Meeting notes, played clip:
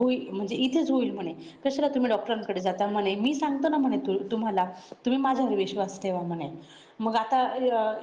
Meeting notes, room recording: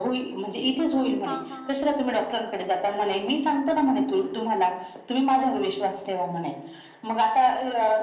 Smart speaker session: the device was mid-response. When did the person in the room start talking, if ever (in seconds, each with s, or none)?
1.2 s